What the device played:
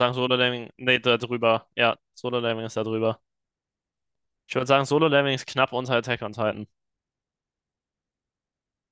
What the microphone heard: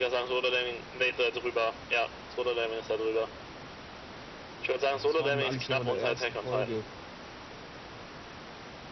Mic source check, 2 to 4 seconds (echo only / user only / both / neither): echo only